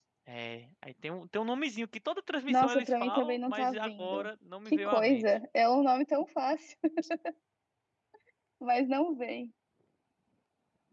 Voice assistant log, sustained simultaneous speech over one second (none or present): present